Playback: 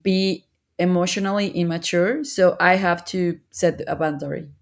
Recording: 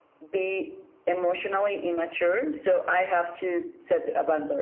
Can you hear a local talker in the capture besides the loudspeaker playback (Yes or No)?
No